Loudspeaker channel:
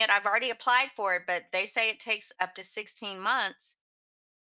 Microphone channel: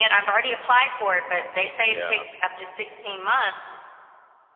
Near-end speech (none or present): present